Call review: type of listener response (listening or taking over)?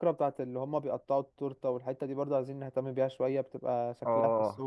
taking over